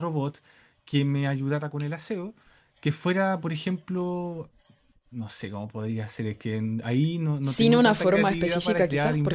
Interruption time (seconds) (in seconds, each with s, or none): 7.4 s